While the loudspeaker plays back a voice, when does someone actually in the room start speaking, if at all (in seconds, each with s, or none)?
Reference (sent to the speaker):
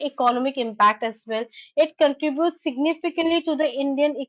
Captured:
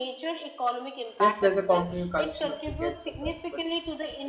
1.2 s